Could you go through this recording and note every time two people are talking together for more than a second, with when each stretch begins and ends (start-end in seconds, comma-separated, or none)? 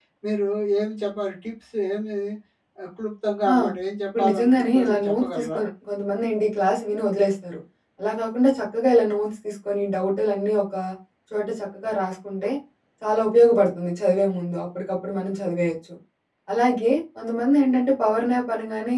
4.1-5.6